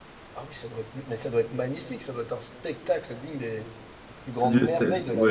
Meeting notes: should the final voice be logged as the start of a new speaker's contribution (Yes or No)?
Yes